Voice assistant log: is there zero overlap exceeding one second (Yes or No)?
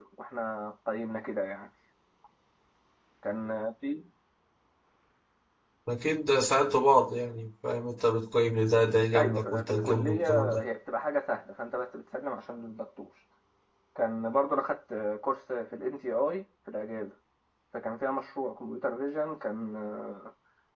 No